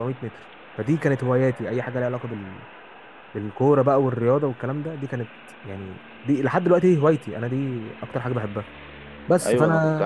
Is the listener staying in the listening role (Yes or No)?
No